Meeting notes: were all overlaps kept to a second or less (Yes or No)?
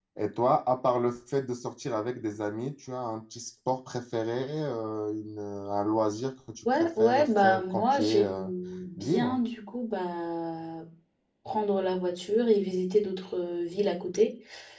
No